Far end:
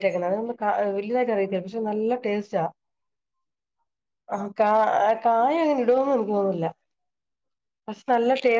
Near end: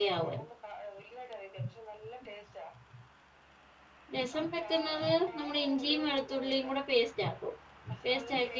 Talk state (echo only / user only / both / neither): both